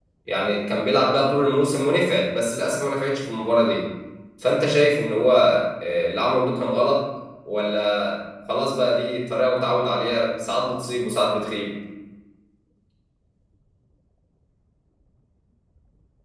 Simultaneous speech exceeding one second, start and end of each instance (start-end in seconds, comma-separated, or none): none